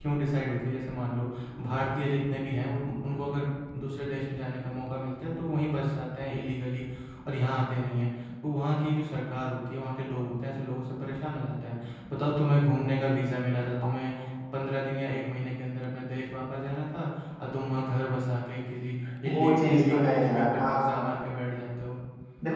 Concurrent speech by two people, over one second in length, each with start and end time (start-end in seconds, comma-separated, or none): 19.3-21.0